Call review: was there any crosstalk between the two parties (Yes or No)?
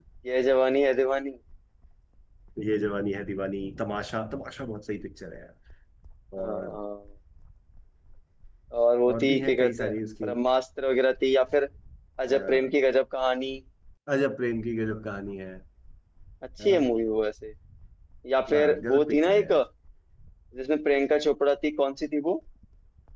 Yes